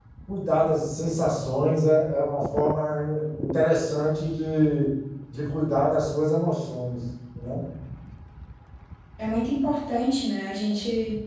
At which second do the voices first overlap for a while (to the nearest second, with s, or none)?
none